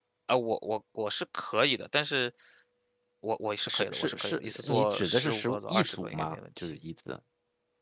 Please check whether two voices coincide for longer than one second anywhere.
Yes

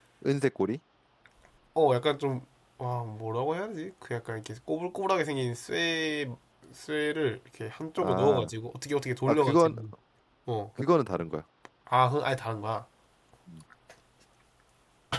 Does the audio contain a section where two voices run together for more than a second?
No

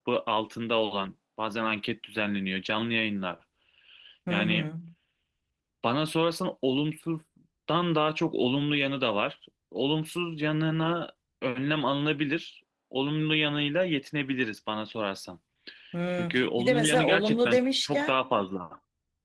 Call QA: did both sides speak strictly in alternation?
No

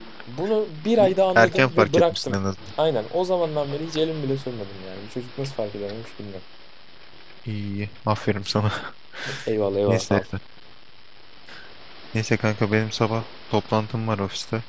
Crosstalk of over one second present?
Yes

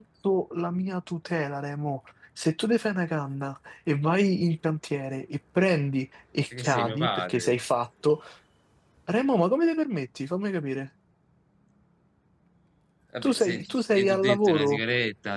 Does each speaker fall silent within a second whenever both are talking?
No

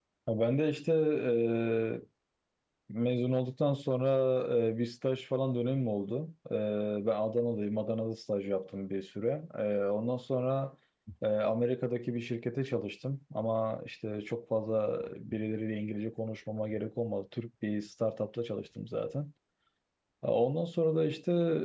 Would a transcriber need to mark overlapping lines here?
No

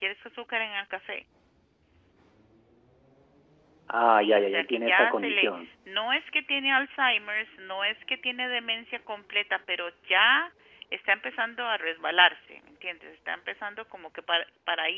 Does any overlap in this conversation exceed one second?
Yes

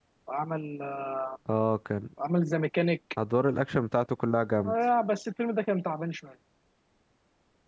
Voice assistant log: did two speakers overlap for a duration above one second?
No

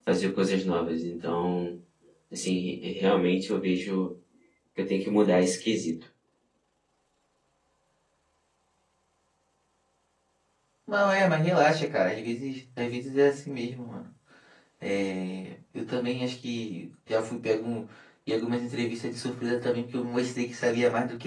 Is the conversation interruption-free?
Yes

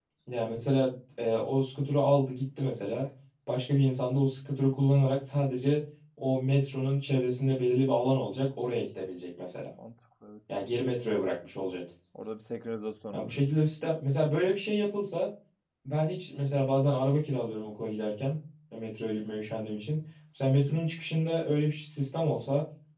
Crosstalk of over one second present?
No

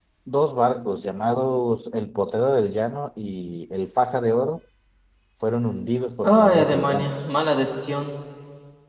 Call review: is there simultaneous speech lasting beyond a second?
Yes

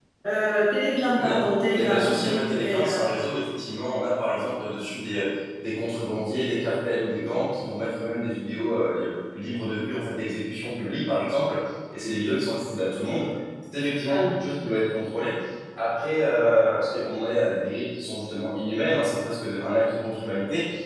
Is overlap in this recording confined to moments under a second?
No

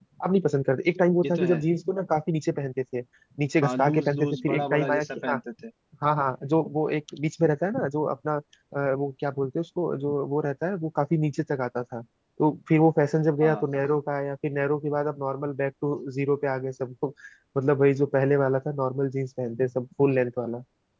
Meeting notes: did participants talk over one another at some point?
Yes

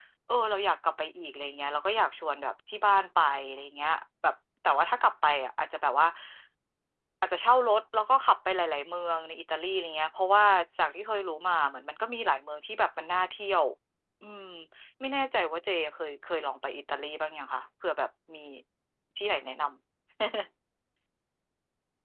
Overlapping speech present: No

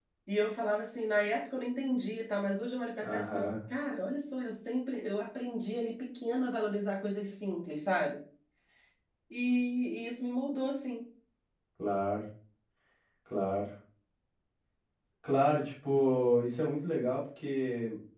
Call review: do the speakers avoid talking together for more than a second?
Yes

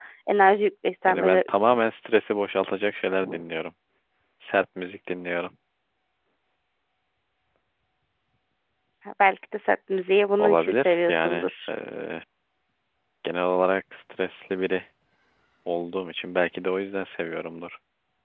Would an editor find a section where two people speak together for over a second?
Yes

